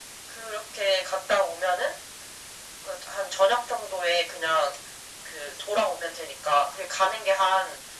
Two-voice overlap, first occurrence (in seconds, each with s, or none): none